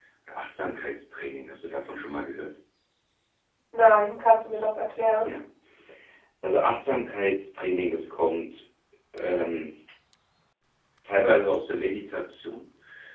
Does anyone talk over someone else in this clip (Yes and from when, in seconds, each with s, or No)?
No